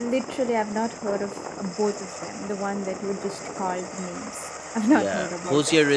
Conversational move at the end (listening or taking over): taking over